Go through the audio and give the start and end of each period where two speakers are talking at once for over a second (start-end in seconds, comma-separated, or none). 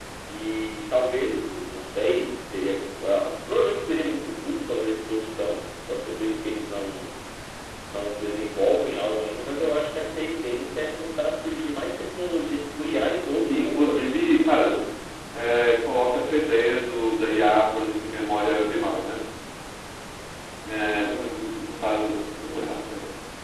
13.4-14.8